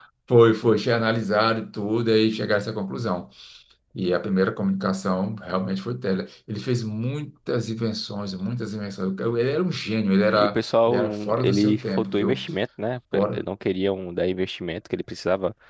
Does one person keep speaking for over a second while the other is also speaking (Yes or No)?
Yes